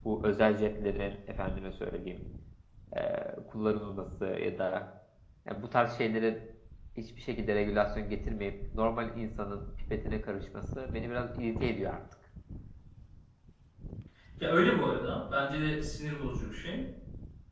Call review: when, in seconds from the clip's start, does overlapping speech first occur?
none

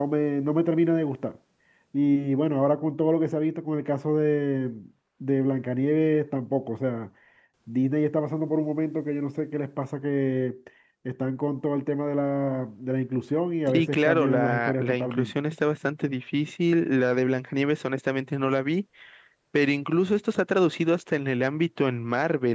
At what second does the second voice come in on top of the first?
13.7 s

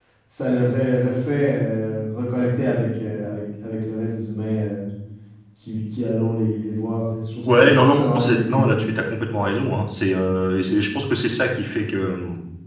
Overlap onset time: 7.5 s

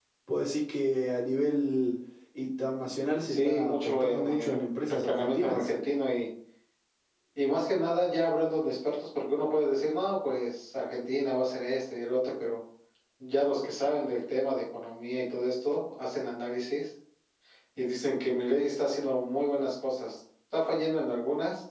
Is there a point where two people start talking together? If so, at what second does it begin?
3.3 s

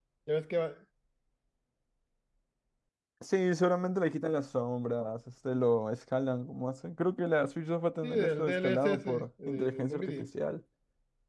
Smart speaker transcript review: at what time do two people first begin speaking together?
8.0 s

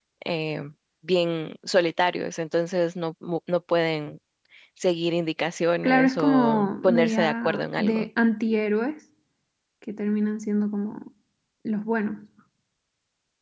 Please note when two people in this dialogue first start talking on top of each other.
5.8 s

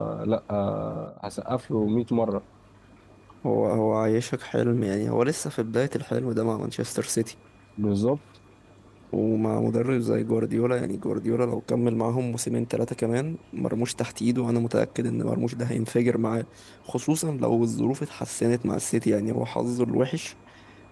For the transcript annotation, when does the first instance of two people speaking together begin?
none

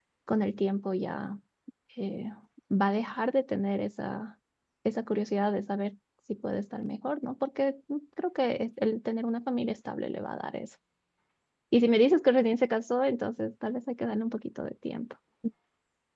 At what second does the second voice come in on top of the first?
none

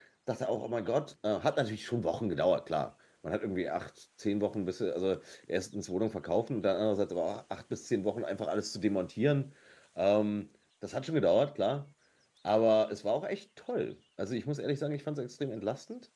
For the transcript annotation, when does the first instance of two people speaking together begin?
none

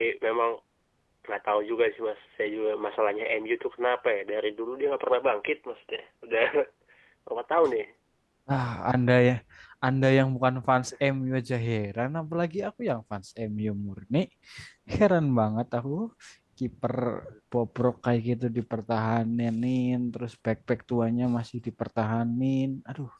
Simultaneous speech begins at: none

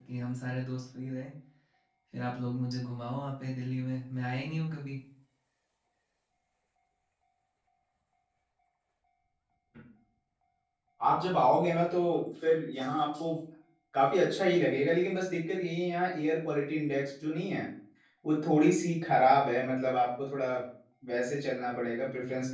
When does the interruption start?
none

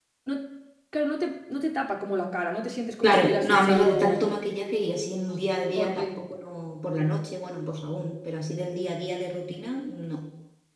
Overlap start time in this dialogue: 3.0 s

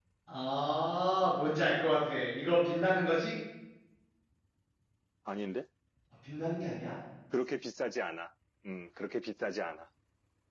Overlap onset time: none

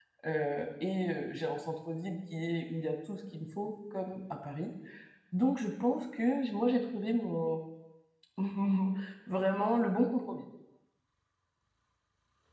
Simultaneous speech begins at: none

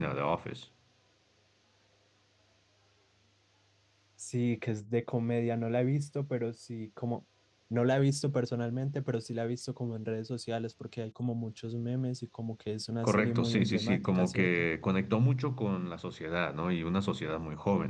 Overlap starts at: 13.0 s

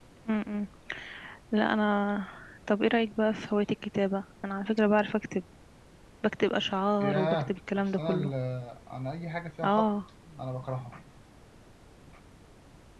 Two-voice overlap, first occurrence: 7.0 s

